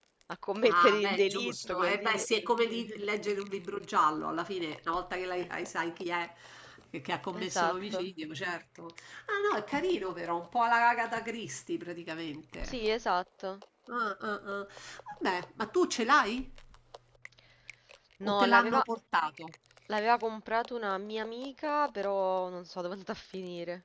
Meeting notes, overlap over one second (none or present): present